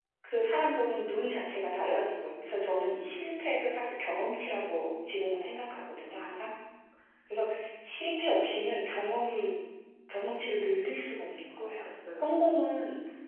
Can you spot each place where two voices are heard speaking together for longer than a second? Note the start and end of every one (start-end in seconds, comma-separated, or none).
none